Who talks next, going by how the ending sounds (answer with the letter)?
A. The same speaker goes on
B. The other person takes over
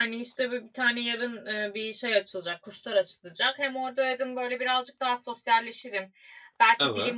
A